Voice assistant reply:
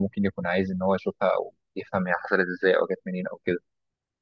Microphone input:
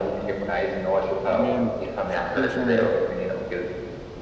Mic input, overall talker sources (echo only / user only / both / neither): both